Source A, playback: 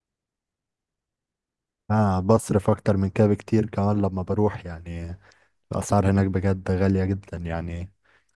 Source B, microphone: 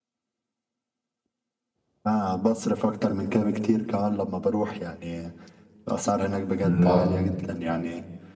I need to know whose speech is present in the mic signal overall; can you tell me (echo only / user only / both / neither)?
both